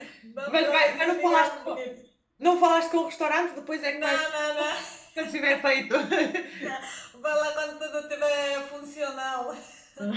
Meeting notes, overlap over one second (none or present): present